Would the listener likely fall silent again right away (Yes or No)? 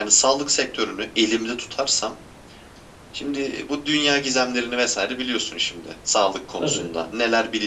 Yes